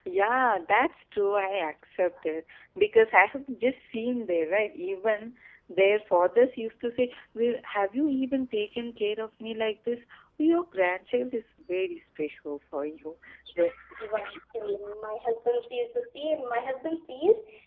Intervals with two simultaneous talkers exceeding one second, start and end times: none

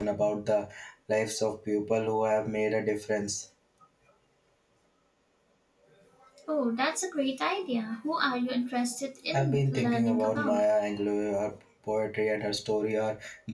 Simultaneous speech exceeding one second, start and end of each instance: 9.3-10.6

